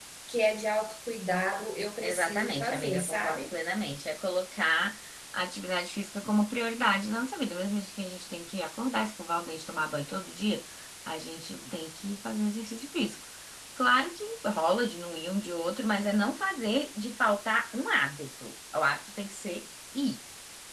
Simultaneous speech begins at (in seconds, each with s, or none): 2.0 s